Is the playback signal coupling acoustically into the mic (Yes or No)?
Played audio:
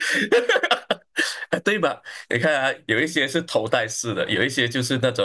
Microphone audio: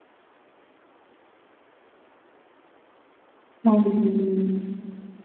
No